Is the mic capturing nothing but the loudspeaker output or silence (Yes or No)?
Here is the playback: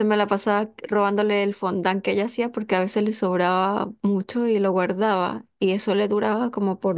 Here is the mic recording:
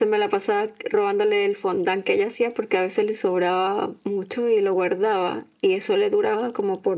Yes